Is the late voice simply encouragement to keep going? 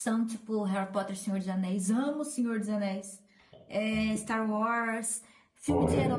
Yes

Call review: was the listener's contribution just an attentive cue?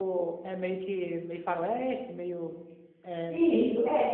No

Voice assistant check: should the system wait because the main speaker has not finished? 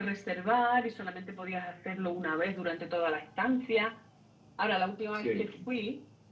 Yes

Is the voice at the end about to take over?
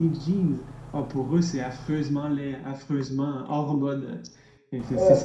No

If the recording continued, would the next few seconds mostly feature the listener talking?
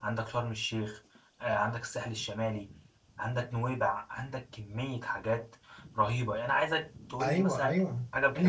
Yes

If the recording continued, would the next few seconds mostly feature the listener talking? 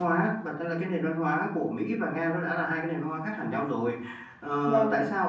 No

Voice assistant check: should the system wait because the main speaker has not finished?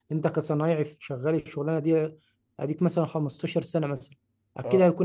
Yes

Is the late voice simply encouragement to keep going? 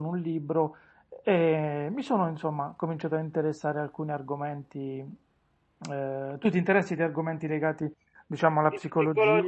No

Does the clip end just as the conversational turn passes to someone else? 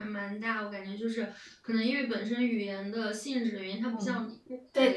Yes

